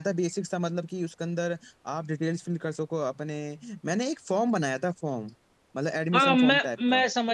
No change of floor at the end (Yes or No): No